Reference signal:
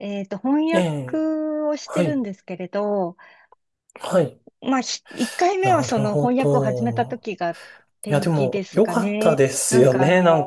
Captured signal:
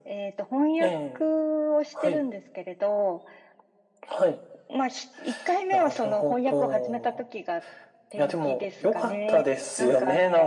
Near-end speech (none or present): none